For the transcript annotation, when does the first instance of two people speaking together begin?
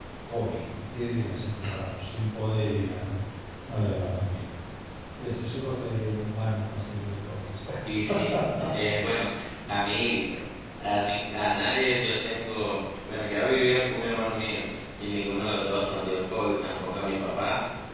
none

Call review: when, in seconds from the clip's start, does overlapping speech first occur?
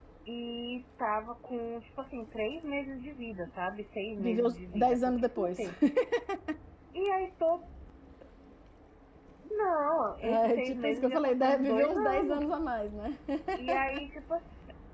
4.2 s

